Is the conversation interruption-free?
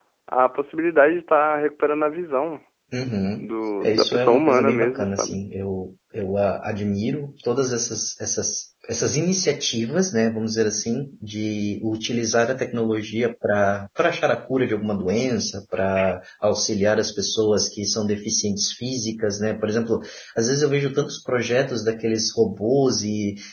No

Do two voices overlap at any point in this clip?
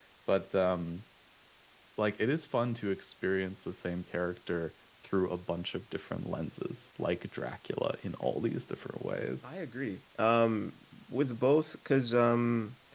No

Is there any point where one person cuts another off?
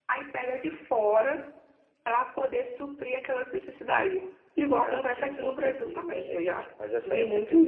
Yes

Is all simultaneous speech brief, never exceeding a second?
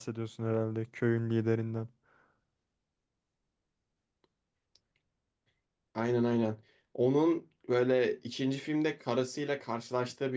Yes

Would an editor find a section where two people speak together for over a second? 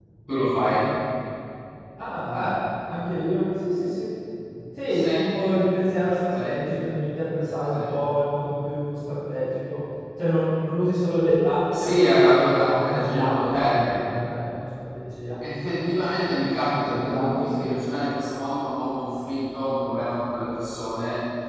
Yes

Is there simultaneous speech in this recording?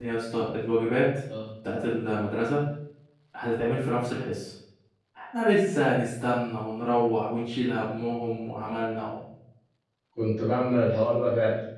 No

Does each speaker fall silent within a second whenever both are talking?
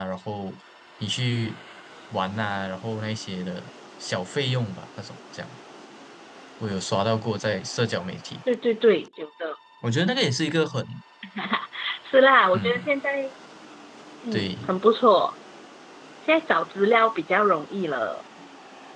Yes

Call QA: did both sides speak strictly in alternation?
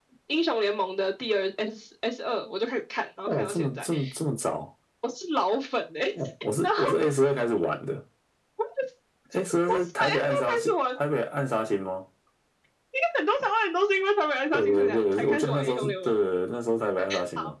No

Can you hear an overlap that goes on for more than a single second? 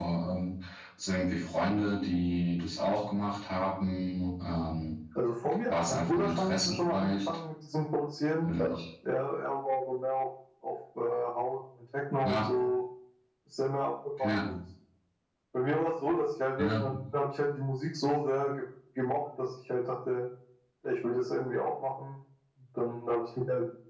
Yes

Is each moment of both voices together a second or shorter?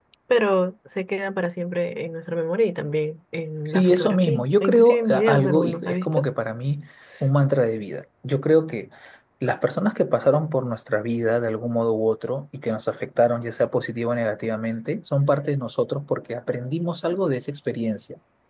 No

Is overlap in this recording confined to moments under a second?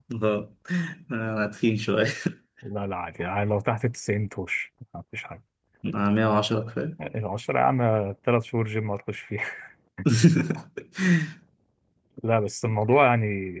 Yes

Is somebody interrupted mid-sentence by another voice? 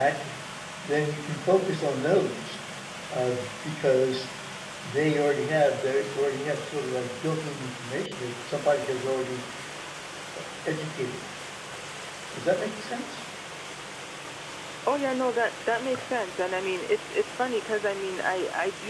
No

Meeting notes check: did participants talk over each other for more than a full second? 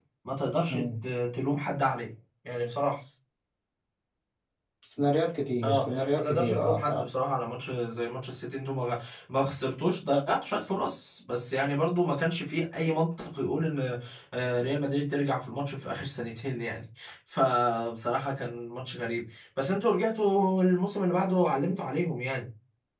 Yes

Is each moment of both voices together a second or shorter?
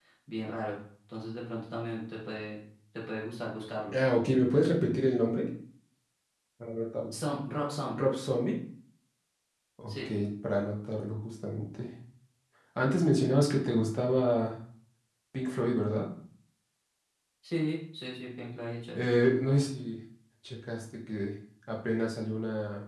Yes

